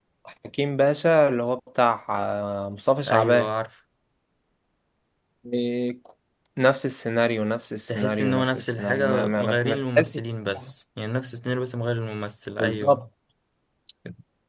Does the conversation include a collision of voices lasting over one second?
Yes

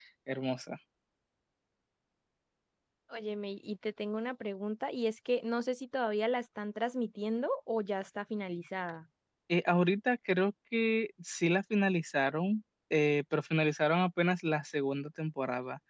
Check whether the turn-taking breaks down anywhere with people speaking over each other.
No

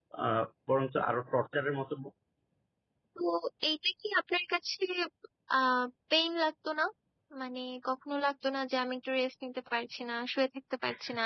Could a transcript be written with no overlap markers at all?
Yes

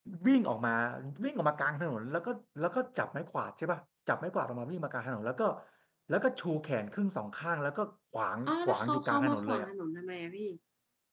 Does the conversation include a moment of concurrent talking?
Yes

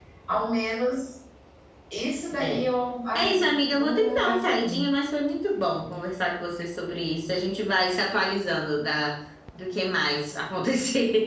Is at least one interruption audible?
Yes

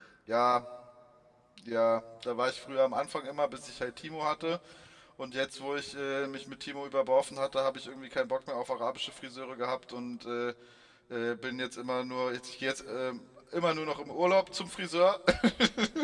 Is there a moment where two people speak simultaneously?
No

